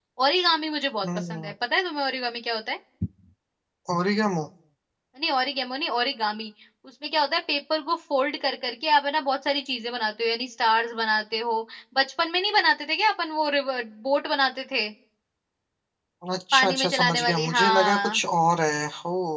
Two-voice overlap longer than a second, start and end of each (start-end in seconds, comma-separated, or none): 16.5-18.2